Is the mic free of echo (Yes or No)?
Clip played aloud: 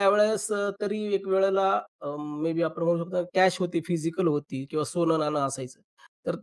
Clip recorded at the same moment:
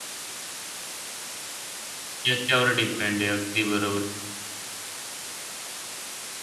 Yes